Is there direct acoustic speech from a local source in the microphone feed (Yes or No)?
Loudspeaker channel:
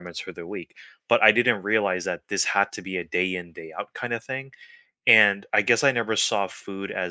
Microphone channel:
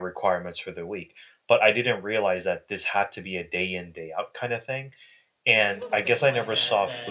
Yes